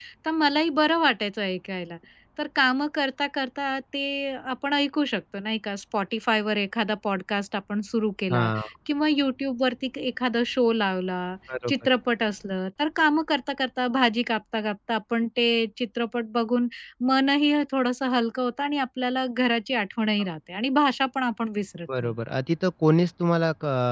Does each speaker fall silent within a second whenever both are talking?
Yes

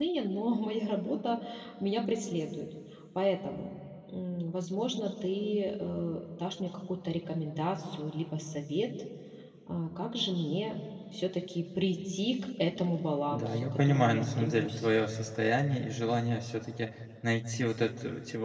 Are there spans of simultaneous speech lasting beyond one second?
Yes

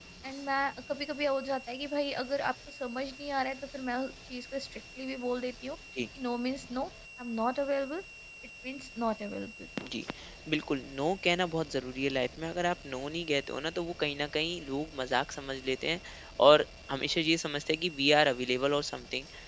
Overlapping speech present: No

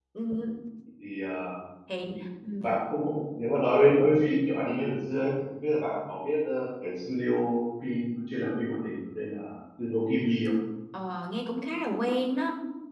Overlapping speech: No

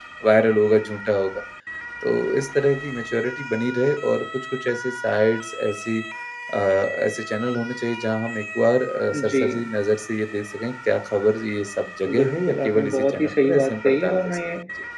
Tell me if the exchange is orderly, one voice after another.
No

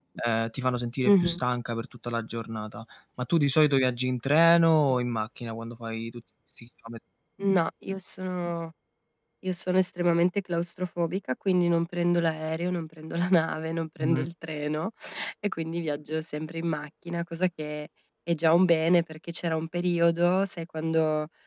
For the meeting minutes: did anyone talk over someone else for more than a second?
No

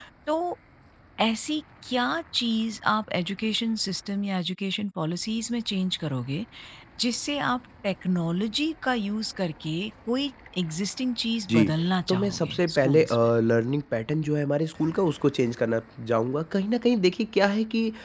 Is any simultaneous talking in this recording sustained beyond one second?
Yes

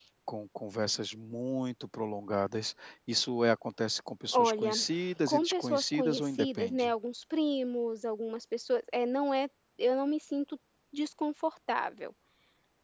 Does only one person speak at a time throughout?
No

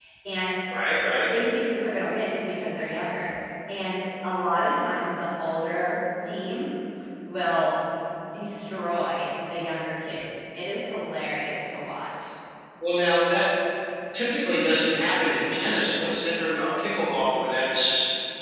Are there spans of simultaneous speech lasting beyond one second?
No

